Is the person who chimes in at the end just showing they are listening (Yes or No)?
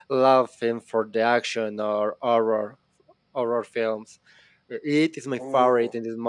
Yes